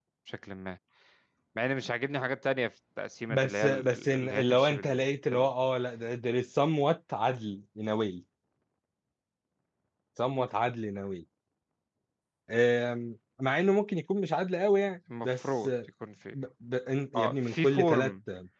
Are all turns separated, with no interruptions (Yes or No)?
No